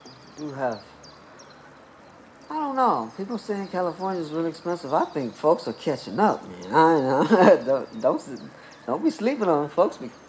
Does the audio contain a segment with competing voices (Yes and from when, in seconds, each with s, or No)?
No